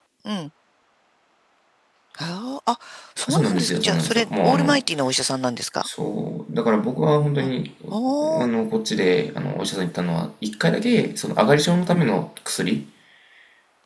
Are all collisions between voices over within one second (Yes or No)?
No